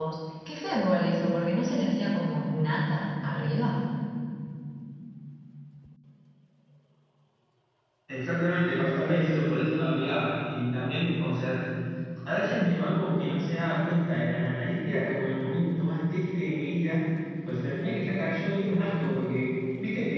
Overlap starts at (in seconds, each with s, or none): none